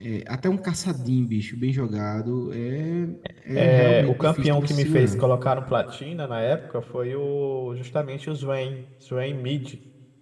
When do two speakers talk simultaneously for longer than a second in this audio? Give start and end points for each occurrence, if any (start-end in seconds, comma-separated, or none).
3.6-5.2